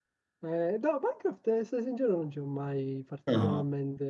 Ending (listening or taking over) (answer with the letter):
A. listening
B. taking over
A